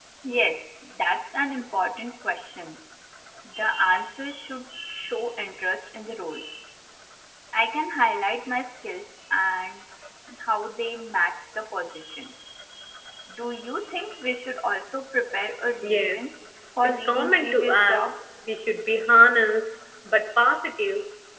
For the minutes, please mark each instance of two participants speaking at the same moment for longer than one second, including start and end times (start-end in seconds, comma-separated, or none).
16.8-18.1